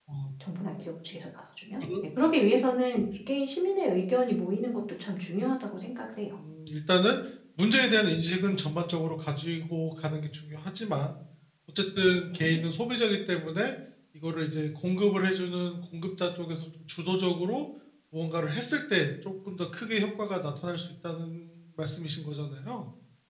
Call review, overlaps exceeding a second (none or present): none